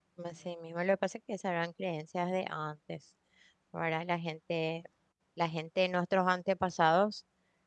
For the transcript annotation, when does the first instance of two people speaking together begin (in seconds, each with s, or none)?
none